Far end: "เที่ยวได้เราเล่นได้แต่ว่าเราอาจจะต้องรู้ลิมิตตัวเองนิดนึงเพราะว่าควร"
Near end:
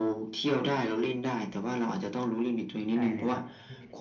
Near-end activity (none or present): present